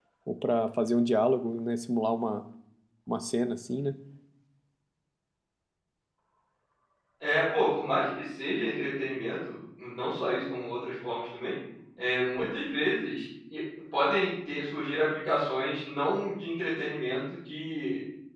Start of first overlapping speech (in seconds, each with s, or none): none